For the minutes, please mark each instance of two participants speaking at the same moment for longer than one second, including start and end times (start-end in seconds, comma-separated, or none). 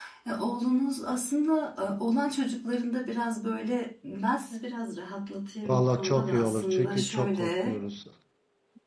5.7-7.8